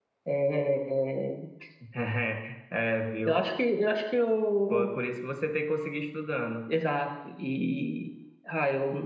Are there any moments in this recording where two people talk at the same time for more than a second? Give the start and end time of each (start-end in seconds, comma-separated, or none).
none